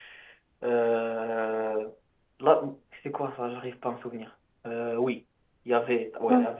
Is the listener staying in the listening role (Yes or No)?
Yes